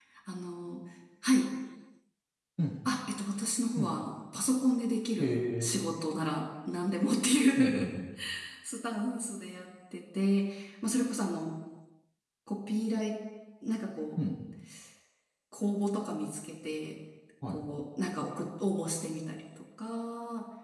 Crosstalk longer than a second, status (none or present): none